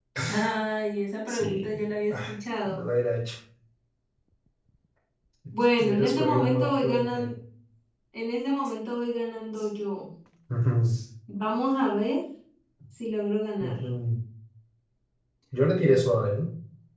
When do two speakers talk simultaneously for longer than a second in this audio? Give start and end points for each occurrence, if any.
5.8-7.3

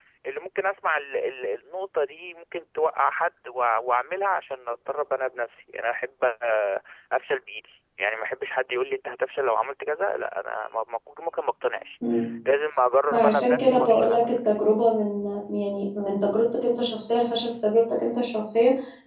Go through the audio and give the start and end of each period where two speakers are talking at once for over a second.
13.1-14.4

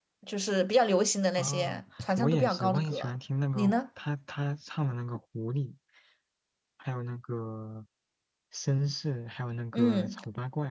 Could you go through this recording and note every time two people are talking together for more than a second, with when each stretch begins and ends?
1.4-3.1

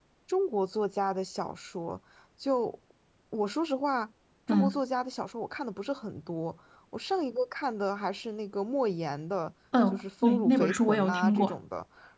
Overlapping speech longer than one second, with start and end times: 9.9-11.6

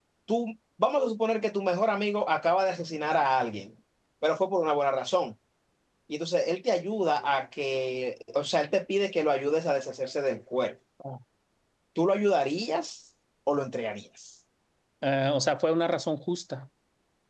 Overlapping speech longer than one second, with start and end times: none

